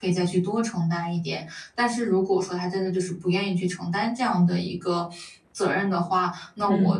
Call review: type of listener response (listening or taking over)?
listening